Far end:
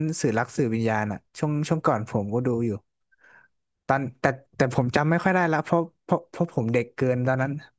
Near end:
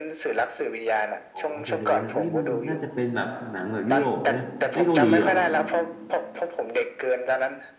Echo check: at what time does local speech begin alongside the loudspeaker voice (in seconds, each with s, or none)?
1.3 s